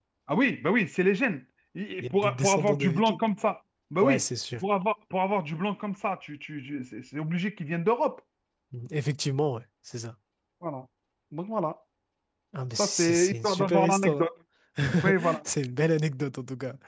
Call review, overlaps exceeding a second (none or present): present